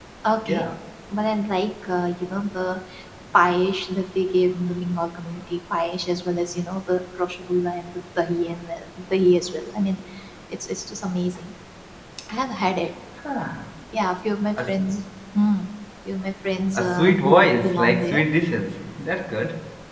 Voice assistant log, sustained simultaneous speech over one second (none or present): present